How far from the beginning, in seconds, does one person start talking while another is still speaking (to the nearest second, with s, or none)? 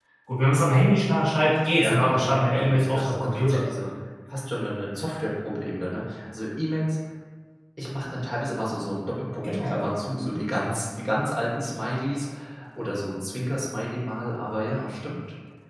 2 s